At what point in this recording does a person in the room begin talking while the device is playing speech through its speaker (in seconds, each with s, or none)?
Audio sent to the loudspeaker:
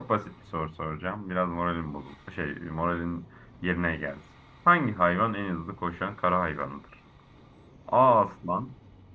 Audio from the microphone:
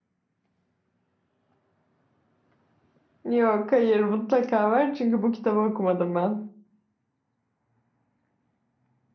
3.2 s